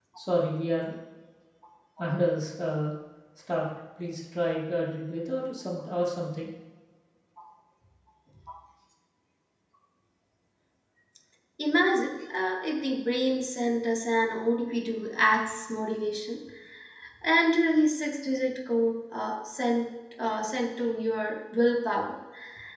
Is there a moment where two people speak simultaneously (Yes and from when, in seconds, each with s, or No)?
No